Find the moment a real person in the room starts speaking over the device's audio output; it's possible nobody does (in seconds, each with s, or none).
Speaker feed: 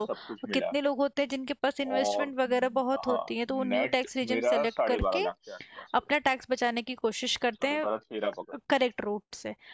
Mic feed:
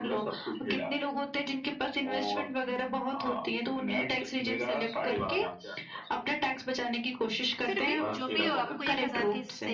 7.6 s